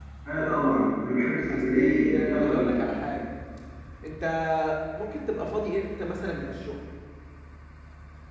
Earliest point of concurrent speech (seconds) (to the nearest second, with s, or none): 2 s